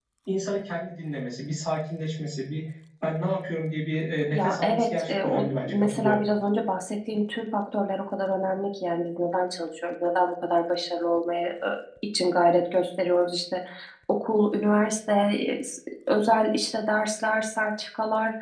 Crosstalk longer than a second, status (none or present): present